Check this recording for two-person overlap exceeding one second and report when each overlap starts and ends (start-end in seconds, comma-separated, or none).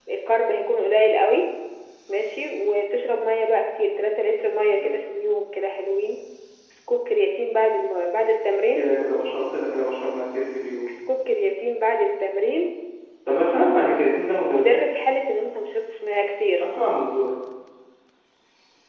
none